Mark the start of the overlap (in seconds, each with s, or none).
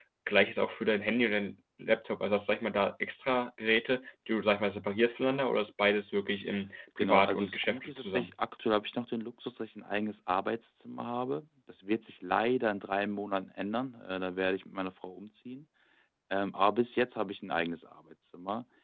7.0 s